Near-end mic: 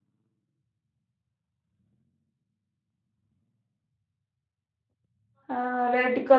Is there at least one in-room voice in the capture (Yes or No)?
Yes